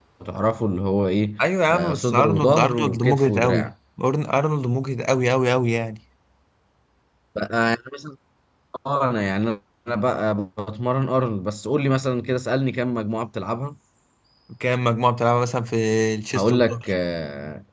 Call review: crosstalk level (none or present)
present